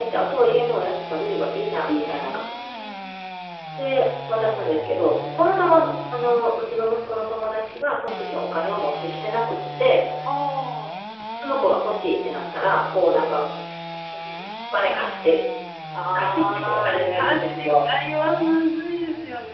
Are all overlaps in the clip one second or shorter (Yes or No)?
No